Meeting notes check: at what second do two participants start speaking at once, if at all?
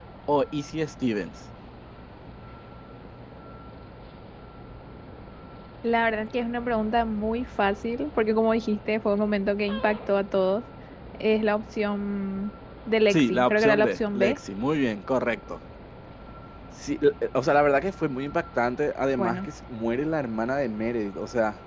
13.1 s

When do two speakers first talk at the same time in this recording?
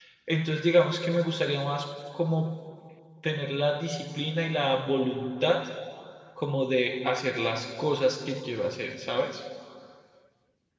none

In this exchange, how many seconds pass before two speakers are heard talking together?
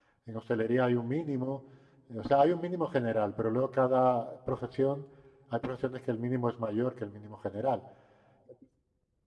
none

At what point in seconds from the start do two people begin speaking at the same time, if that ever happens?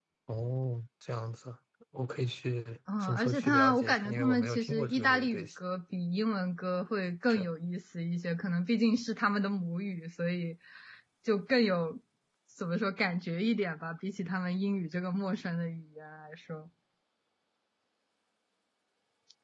2.9 s

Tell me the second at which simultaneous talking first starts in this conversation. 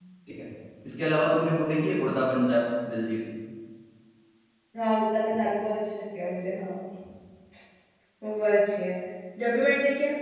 none

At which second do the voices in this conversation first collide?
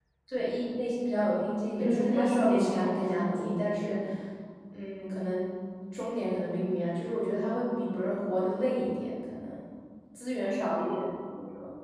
1.8 s

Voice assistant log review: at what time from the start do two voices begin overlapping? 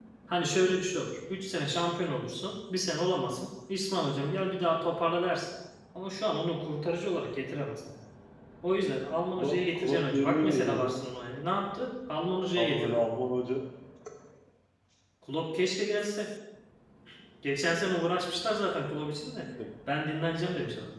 9.4 s

